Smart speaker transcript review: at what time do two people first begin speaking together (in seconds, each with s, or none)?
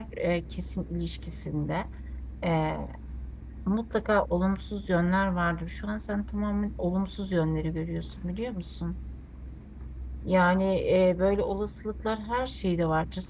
none